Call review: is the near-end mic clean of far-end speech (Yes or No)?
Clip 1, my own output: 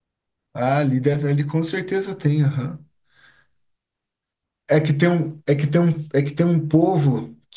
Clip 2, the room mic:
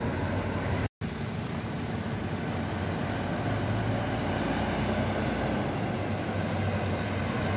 Yes